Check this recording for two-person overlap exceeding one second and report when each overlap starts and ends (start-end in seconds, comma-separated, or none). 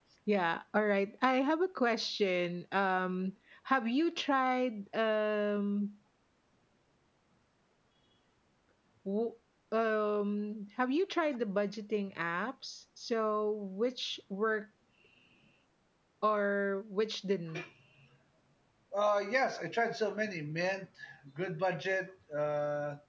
none